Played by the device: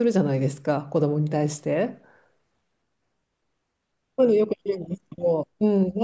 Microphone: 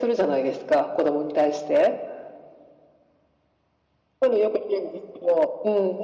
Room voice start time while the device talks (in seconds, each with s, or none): none